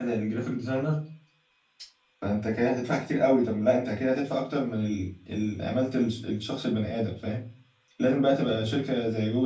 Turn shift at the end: No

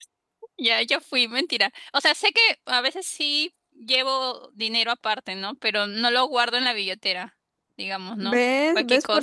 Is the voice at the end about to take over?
Yes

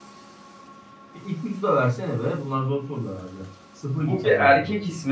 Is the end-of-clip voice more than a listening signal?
Yes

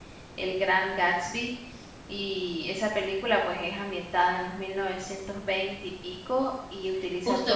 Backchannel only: No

